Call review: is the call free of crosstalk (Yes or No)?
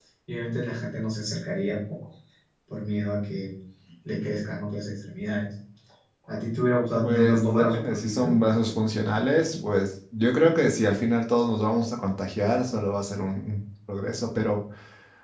No